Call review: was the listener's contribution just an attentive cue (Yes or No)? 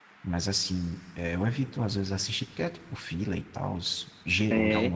Yes